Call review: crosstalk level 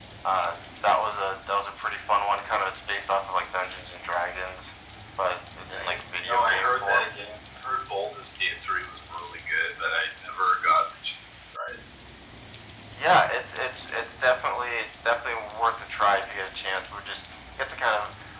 present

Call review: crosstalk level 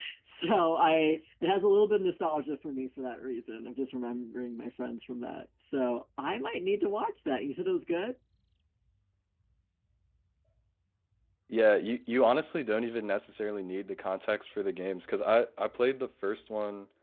none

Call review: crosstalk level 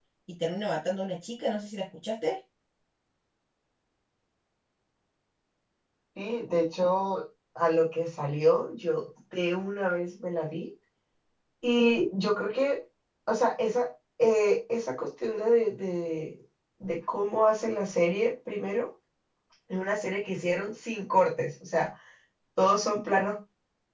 none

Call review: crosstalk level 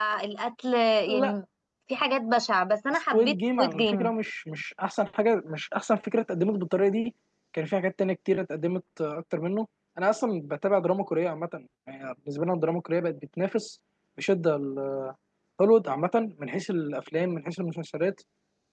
present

